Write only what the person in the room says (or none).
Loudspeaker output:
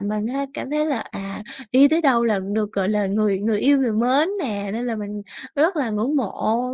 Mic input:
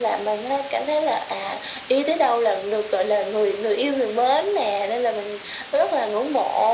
none